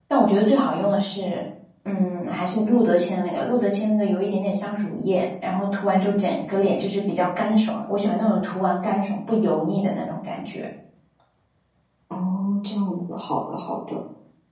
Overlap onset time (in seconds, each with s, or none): none